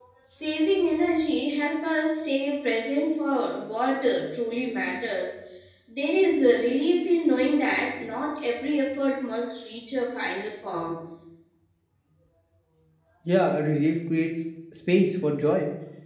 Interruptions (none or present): none